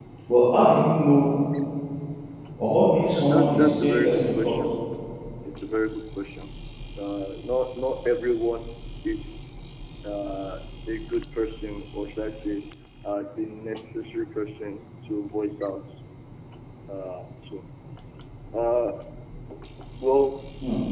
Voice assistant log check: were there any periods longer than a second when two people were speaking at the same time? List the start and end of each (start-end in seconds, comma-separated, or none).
3.1-4.5